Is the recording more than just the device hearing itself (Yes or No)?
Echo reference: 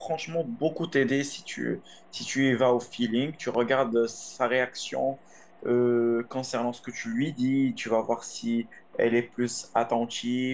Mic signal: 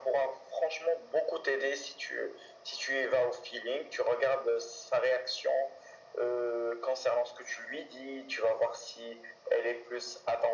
No